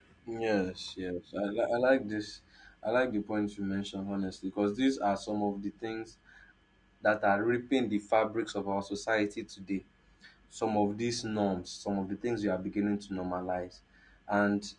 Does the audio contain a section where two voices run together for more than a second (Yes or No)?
No